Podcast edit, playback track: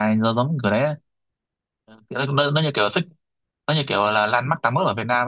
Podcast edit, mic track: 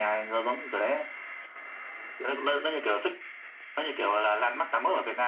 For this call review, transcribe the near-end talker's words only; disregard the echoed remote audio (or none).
none